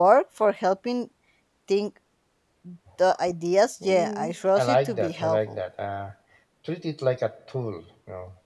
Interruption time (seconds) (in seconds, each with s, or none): 3.8 s